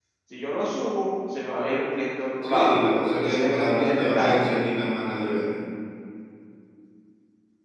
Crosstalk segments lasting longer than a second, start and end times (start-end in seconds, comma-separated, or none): 3.2-4.5